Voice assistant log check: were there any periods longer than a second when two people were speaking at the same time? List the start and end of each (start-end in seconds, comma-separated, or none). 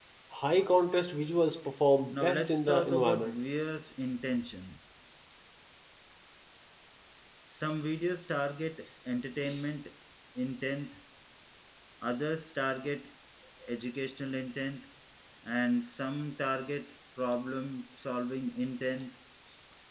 2.1-3.4